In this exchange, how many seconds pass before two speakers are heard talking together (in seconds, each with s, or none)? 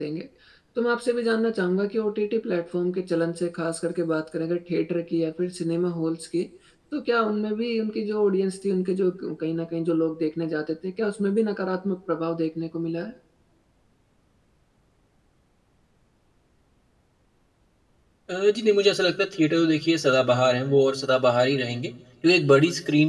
none